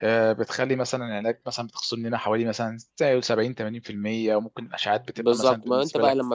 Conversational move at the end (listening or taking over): taking over